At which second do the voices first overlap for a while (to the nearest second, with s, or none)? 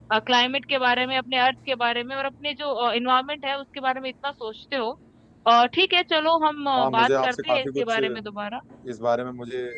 7 s